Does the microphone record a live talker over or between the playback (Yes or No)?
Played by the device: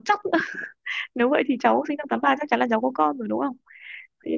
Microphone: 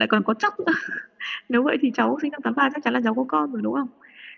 No